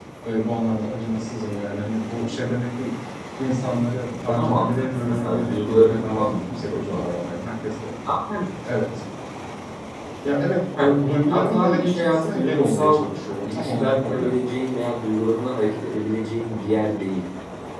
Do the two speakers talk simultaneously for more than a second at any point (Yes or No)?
Yes